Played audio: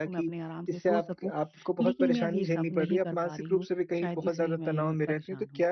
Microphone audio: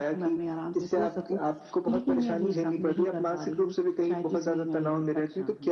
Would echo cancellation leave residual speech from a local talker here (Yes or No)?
No